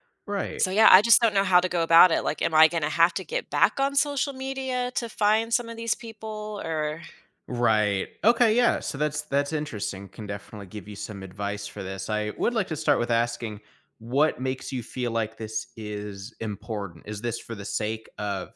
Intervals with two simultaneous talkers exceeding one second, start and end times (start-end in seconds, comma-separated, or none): none